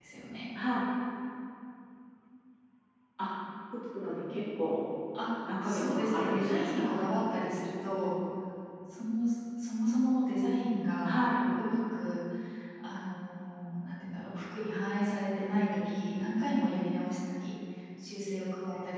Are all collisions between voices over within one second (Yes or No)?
No